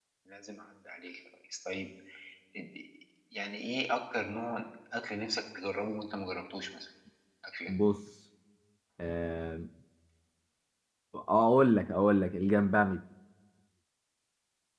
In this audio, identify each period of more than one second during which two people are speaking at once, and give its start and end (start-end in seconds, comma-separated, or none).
none